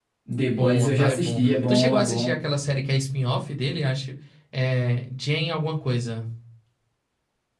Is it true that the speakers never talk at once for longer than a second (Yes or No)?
No